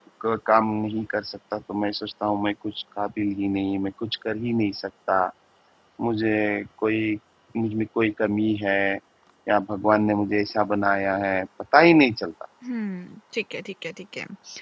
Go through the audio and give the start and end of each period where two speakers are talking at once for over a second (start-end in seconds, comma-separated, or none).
none